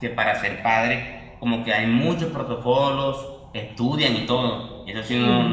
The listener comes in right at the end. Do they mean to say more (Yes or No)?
No